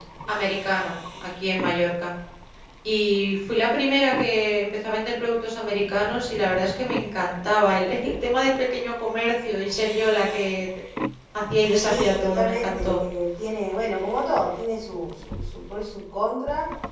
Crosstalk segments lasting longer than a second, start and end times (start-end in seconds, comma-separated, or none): 11.7-13.0